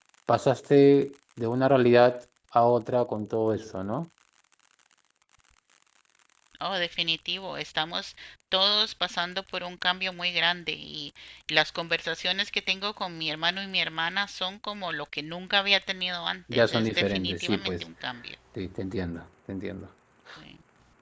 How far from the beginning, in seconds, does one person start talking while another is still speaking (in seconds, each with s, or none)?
16.5 s